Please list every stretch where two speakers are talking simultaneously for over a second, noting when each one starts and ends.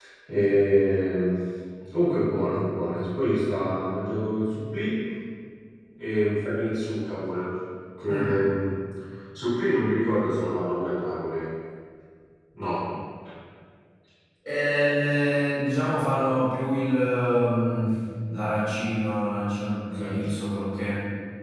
none

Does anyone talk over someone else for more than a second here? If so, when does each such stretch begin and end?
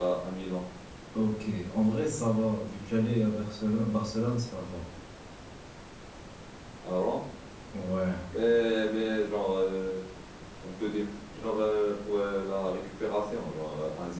none

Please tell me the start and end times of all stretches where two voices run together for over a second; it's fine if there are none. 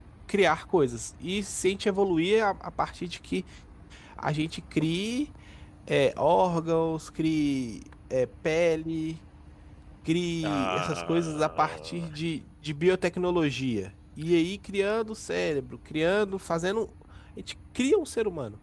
10.4-12.1

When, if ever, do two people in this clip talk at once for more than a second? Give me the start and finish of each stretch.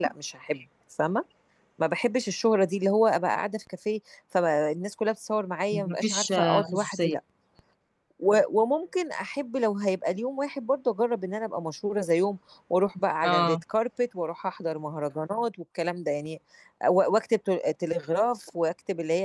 5.7-7.1

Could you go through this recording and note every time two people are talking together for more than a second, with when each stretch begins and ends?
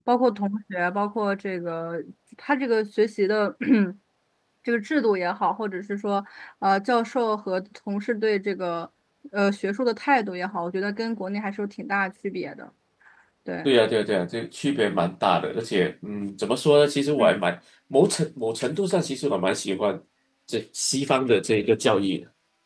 none

